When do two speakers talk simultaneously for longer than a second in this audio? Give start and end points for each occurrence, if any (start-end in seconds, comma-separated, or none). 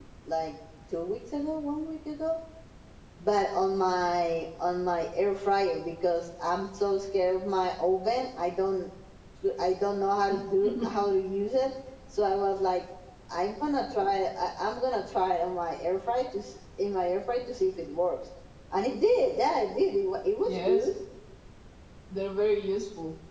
none